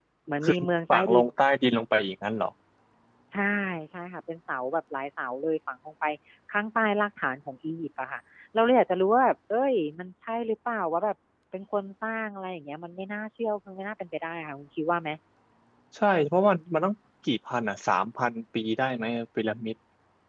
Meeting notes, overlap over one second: none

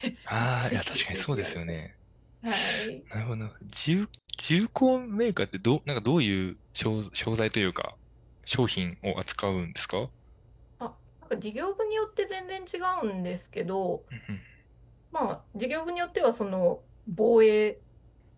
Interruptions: present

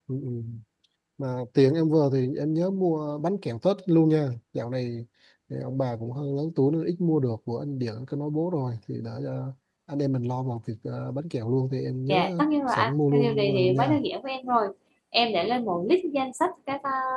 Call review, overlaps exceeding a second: present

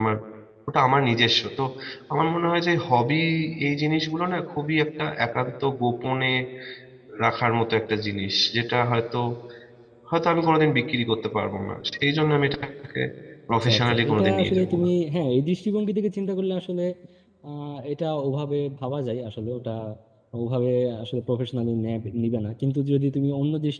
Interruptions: present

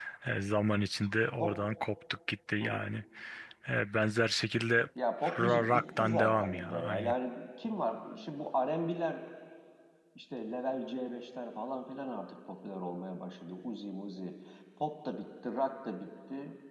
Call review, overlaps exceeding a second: present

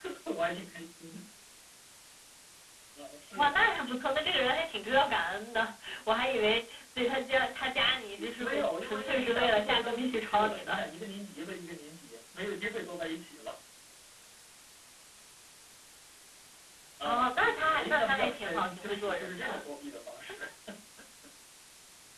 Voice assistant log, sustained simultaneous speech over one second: present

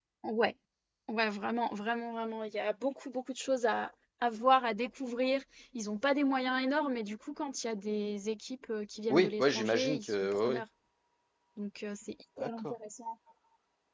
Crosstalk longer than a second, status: present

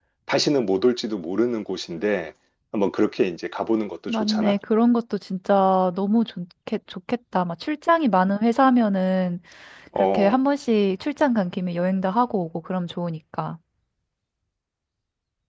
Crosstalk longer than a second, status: none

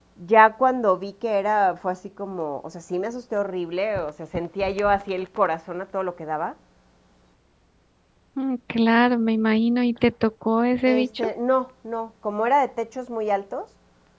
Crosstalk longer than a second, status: none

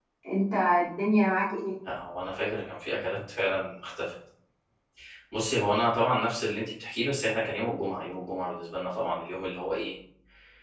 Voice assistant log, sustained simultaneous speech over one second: none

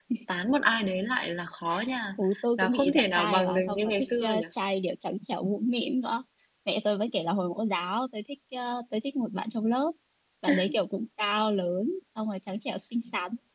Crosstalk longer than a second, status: present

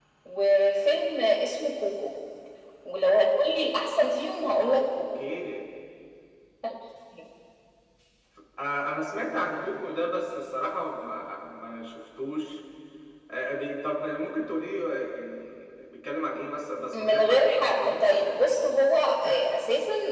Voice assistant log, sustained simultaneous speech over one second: present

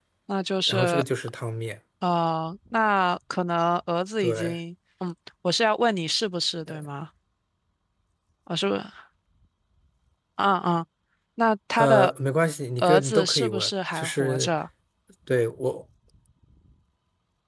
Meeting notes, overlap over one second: present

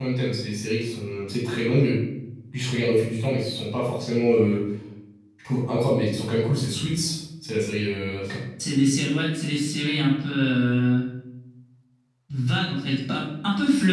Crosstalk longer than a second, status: none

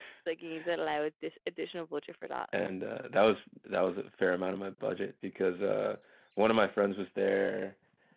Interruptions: none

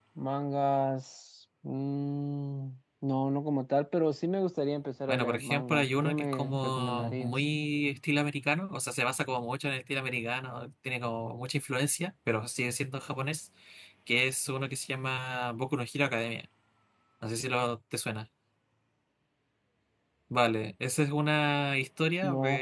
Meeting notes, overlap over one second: present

